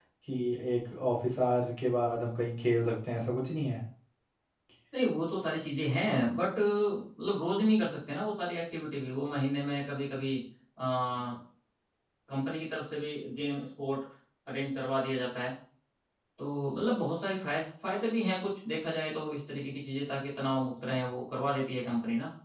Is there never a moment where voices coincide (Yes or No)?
Yes